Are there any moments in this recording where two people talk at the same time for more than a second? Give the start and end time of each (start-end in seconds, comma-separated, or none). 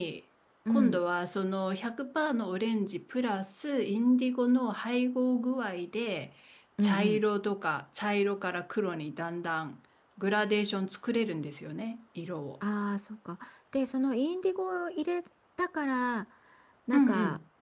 none